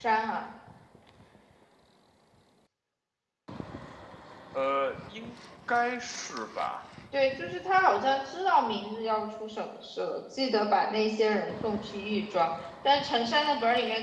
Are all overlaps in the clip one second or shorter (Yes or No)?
Yes